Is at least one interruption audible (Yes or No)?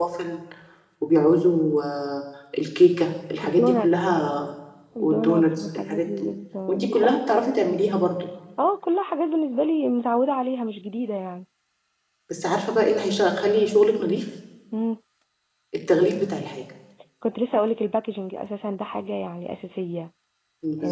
Yes